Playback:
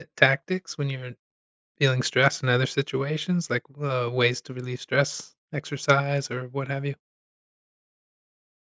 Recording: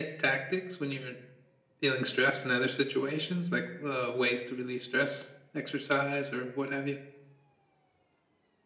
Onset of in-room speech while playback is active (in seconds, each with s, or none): none